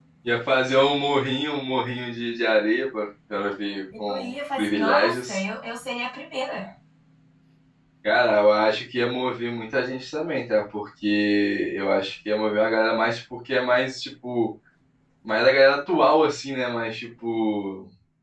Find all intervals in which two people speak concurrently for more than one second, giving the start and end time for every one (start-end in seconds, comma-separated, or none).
4.1-5.4